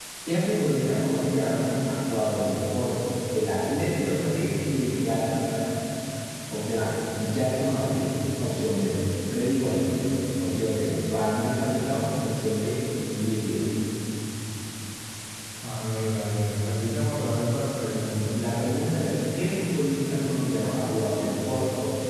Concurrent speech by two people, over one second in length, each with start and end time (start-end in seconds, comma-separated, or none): none